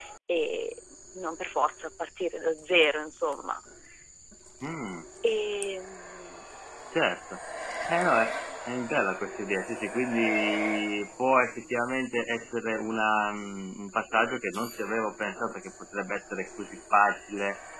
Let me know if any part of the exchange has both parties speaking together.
No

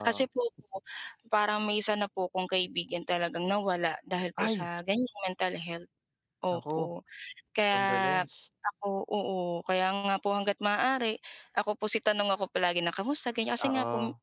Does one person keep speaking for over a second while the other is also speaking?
No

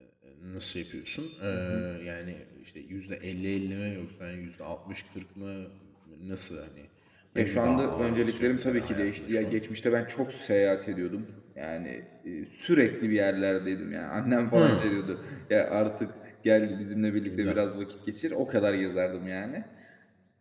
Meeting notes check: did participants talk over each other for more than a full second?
Yes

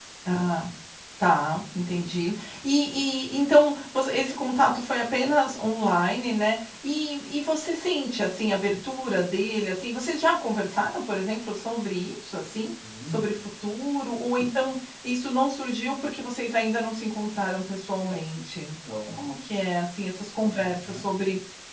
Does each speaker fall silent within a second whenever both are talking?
Yes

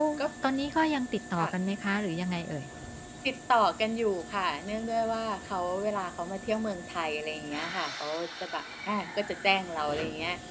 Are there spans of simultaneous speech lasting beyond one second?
No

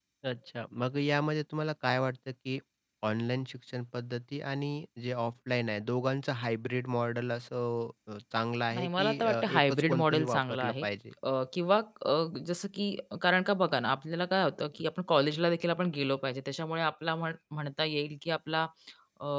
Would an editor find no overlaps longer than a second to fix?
No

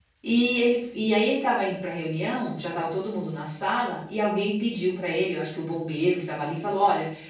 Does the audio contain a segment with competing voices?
No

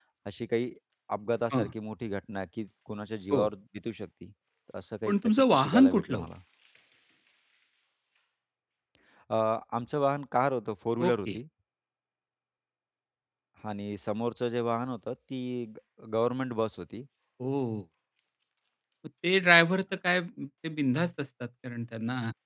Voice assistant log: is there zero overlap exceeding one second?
No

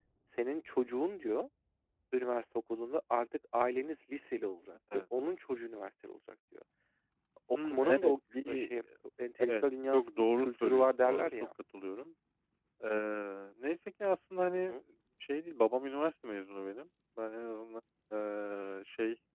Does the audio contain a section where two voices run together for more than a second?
Yes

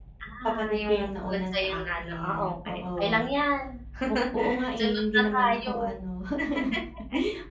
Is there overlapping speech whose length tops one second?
Yes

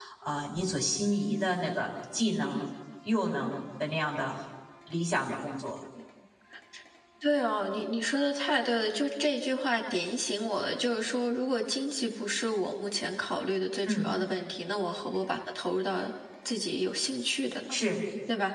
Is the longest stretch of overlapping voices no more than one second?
Yes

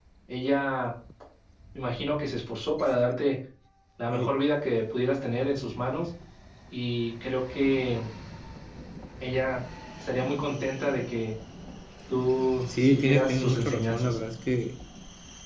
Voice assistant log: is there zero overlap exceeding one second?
No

